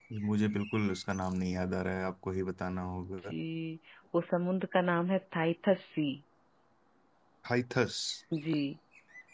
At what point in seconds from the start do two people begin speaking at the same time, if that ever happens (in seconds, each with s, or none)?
none